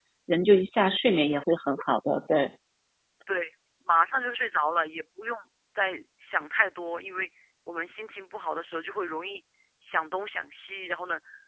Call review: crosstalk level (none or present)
none